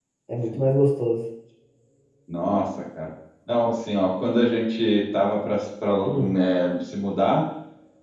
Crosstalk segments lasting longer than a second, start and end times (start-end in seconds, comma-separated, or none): none